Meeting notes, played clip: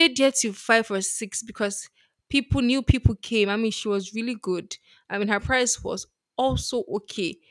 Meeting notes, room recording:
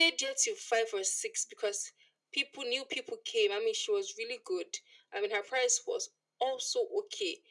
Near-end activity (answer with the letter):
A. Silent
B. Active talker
A